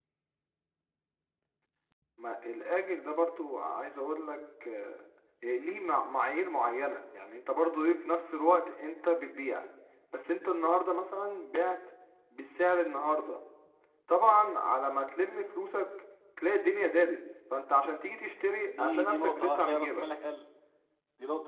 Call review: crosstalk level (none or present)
present